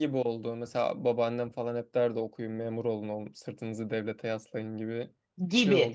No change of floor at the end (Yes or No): No